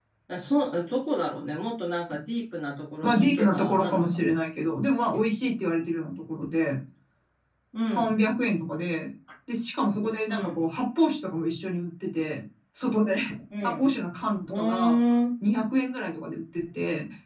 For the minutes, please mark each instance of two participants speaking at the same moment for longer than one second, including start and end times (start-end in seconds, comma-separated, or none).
3.0-4.2